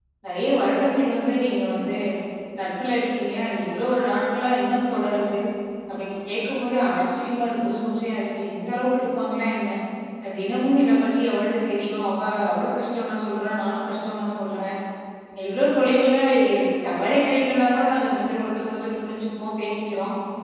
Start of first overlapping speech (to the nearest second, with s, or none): none